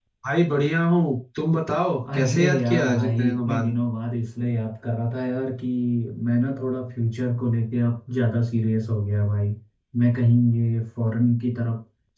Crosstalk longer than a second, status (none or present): present